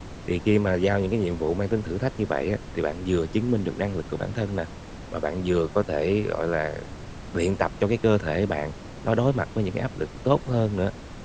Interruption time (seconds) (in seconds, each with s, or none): none